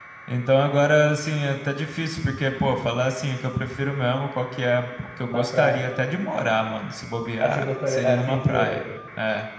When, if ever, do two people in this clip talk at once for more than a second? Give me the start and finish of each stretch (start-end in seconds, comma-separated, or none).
7.4-8.8